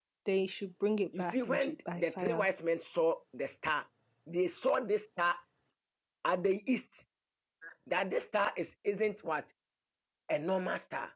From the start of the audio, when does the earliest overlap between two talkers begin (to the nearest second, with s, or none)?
1 s